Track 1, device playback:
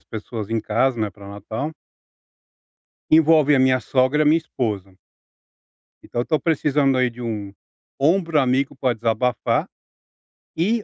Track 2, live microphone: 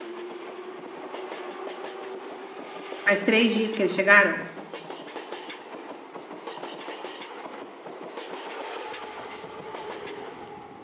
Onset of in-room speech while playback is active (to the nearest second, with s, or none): 3 s